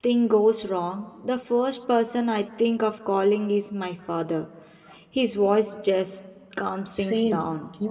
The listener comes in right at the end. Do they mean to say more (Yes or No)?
Yes